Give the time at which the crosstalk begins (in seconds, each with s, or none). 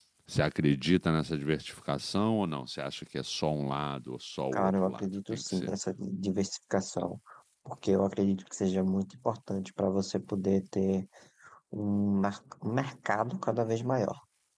4.5 s